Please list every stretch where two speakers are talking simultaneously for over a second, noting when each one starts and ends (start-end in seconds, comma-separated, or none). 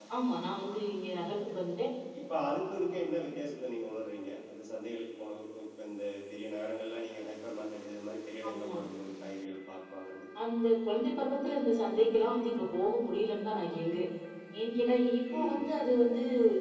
none